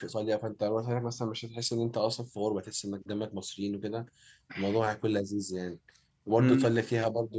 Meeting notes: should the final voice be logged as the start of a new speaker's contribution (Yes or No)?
No